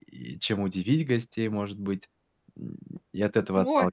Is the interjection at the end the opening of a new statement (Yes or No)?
Yes